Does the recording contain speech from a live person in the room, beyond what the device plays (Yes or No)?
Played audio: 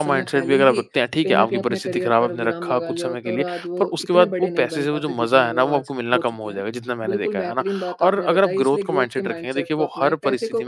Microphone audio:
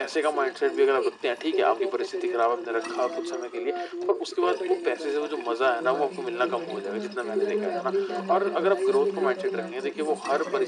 Yes